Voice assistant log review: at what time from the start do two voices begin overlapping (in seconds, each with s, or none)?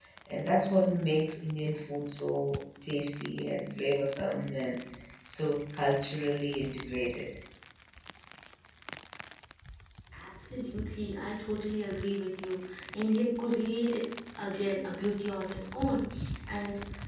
none